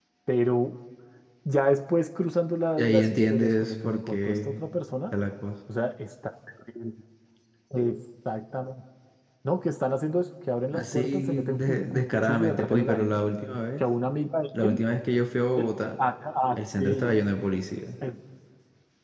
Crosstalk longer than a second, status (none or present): present